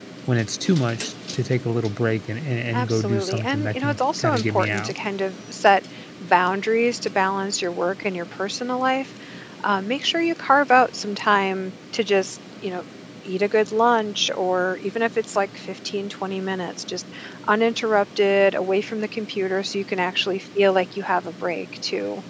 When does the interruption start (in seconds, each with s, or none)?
2.7 s